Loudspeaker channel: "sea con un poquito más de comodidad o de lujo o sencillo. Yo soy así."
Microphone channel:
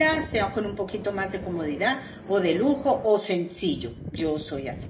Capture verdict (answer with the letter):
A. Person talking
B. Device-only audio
B